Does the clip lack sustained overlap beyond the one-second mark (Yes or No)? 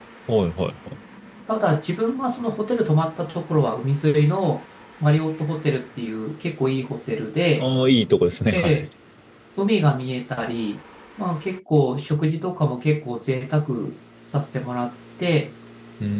Yes